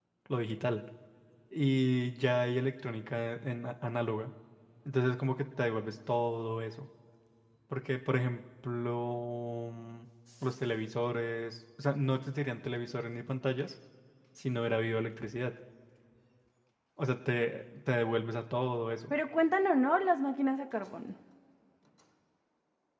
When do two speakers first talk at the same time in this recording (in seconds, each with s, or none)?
none